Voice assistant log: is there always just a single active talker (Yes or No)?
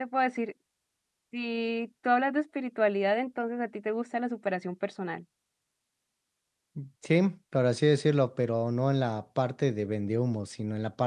Yes